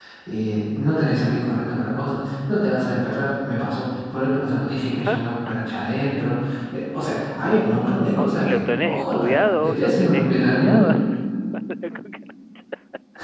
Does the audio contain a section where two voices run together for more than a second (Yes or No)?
Yes